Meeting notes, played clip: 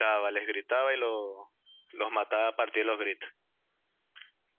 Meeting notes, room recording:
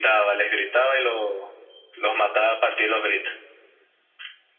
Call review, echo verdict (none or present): present